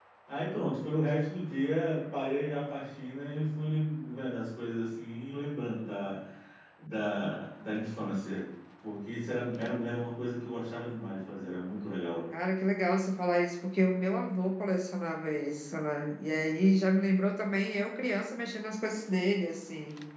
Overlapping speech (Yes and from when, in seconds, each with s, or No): No